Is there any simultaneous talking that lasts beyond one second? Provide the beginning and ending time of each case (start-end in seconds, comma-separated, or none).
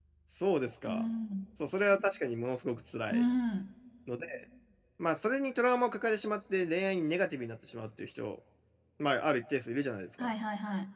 none